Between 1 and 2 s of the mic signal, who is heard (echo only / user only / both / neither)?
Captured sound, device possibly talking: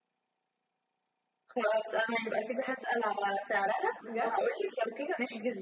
echo only